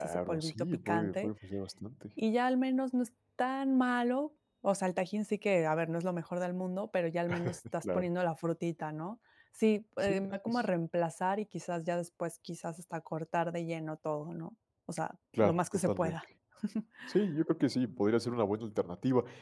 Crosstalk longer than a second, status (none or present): present